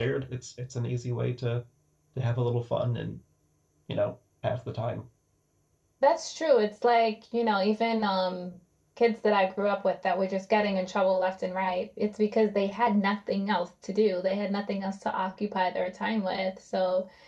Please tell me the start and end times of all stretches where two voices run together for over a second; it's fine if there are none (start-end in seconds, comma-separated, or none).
none